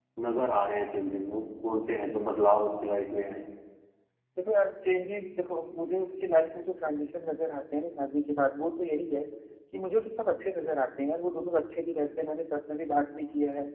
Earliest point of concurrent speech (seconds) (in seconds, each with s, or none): none